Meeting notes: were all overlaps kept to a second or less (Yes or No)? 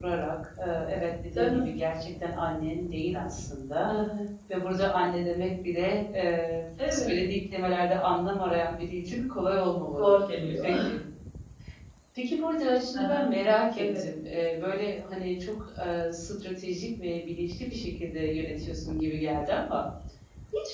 Yes